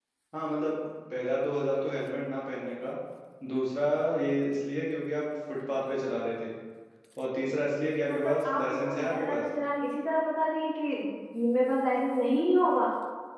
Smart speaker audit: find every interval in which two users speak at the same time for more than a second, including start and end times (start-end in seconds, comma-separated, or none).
8.1-9.4